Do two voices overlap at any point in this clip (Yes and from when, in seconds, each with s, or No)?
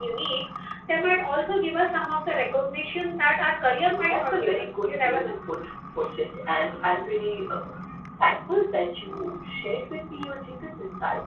Yes, from 4.1 s